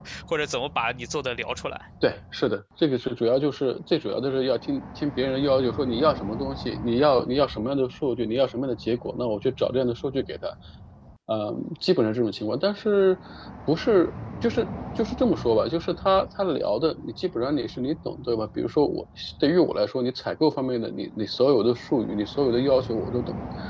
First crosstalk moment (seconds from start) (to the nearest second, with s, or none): none